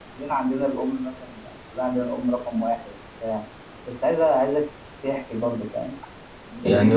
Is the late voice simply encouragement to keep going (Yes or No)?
No